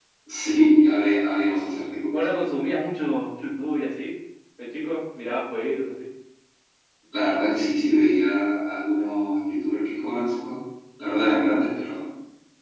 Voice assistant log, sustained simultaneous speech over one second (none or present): none